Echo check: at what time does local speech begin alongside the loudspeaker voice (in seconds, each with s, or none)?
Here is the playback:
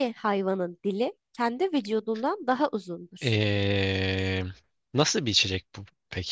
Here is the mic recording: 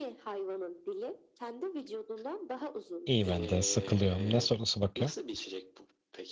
3.1 s